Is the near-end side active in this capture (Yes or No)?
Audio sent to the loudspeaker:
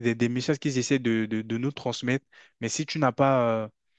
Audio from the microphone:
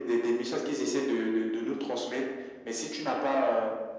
No